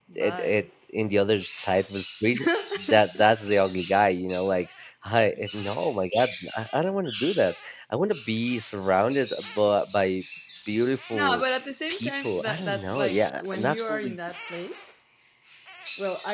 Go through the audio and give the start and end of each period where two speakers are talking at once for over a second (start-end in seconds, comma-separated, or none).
11.9-14.2